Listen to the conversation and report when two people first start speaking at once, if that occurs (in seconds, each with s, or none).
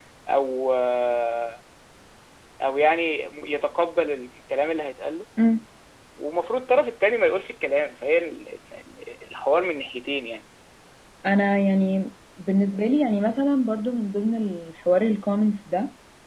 none